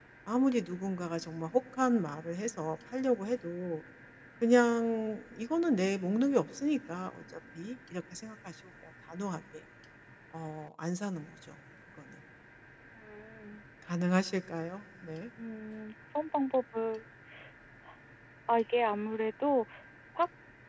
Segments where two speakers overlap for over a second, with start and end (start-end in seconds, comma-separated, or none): none